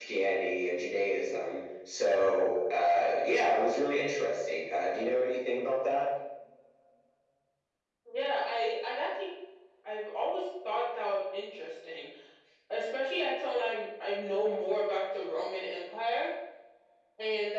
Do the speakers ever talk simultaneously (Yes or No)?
No